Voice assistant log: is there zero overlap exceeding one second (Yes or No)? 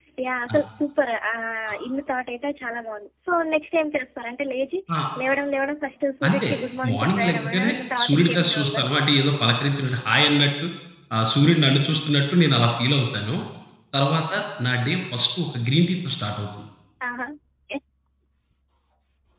No